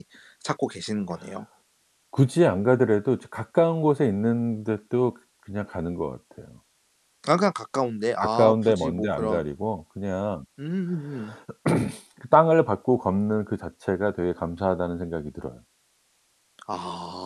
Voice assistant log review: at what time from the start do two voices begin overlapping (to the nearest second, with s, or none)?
8 s